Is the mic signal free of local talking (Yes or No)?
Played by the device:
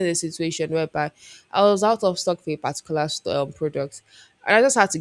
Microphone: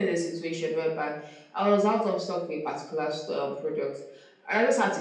Yes